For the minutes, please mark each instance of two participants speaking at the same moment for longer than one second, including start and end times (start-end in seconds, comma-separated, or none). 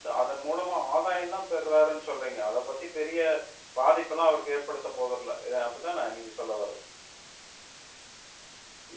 none